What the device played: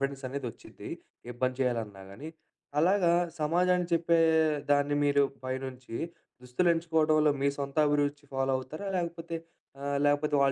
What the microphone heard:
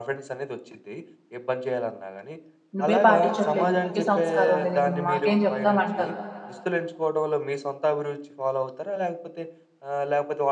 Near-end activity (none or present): present